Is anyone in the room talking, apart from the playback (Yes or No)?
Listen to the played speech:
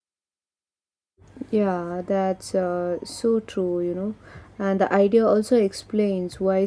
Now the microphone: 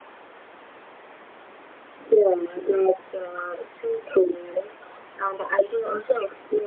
No